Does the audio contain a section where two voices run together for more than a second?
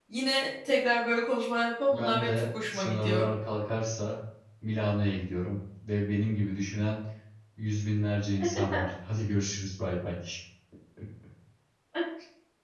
Yes, from 1.9 s

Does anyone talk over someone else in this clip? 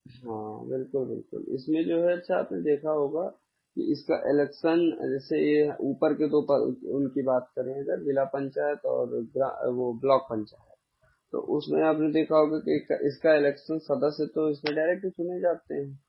No

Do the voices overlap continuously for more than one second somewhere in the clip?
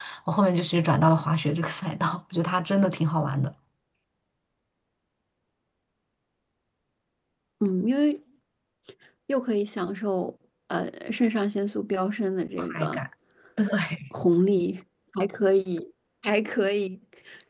No

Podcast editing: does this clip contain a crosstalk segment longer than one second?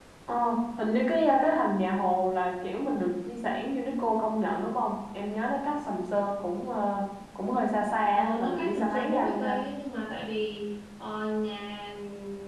Yes, from 8.2 s

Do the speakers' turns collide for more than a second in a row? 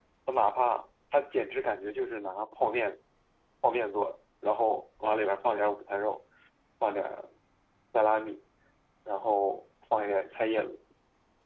No

